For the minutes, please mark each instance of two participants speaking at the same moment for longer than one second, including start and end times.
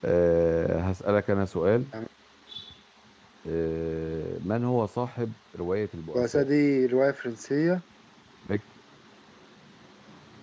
none

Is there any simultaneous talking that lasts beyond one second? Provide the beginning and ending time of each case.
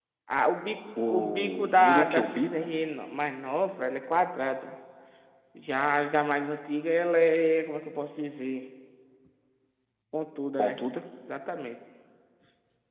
1.1-2.5

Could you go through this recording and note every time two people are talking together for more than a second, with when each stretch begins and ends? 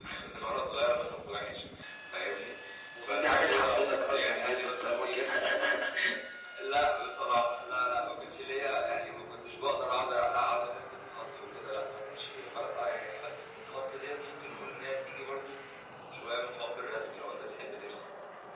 3.0-5.3

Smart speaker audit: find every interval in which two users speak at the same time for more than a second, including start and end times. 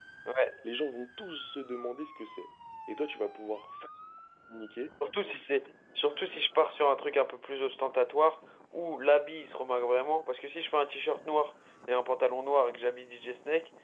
none

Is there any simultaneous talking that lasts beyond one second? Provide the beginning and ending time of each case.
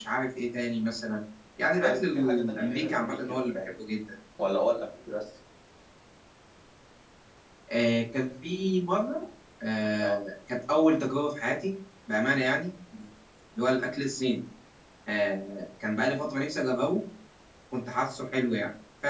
1.8-3.6

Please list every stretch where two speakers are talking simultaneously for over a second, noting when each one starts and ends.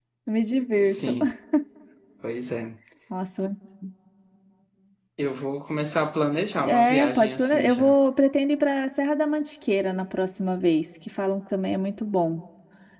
6.7-8.0

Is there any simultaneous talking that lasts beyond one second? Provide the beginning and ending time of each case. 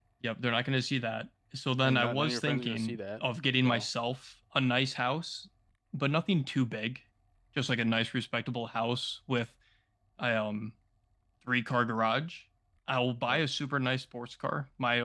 1.8-3.2

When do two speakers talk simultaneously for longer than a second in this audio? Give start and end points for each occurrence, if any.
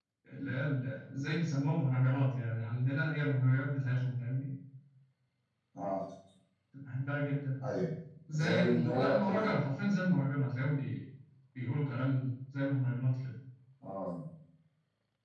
8.4-9.6

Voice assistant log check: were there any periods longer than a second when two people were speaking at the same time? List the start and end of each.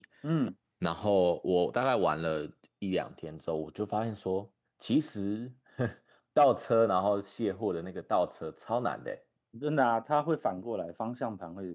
none

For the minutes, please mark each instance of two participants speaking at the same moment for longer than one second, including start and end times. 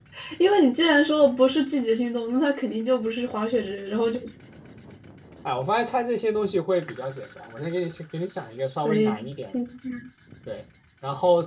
none

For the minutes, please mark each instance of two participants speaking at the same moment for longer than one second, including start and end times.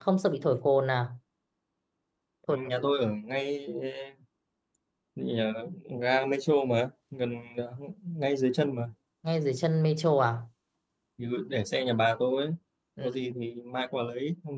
none

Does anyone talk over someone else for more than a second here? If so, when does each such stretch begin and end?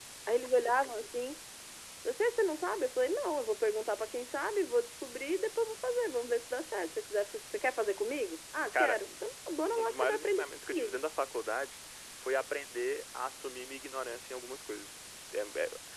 9.8-11.0

